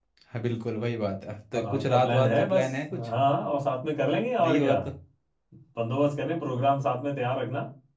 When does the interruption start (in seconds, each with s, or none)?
1.5 s